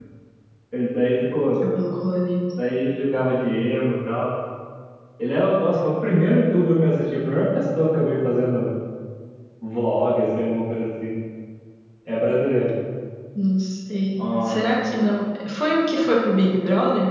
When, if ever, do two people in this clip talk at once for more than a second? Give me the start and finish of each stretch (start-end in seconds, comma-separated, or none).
none